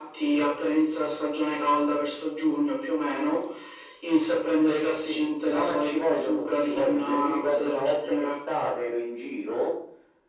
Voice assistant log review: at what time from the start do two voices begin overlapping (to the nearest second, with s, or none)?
5 s